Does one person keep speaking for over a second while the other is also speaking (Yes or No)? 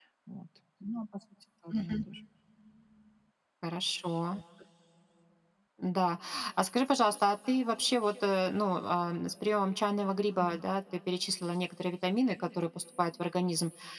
No